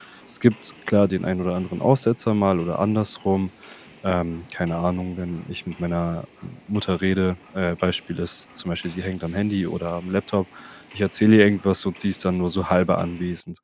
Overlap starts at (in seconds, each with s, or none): none